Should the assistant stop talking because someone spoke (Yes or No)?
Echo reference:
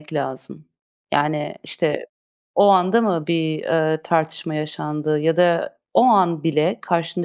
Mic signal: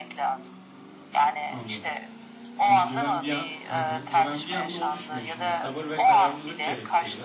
Yes